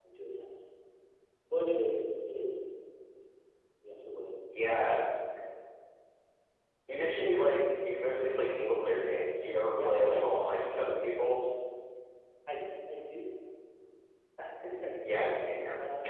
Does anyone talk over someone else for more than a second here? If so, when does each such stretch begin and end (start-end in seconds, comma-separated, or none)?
9.7-11.3